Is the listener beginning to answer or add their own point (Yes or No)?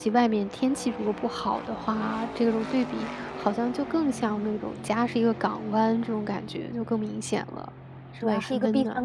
Yes